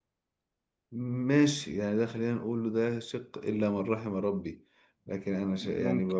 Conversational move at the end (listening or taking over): listening